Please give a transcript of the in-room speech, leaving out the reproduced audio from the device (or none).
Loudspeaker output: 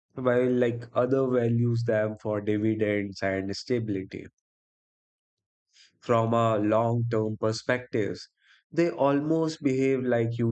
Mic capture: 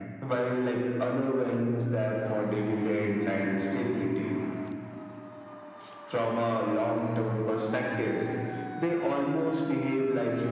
none